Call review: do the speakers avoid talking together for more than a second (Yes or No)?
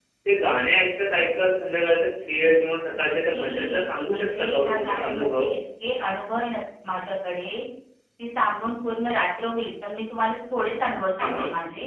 No